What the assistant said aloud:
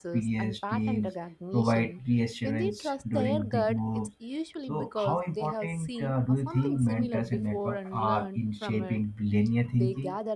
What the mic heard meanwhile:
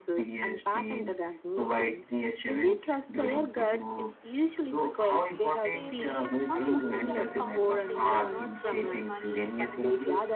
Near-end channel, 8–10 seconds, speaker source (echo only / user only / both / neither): both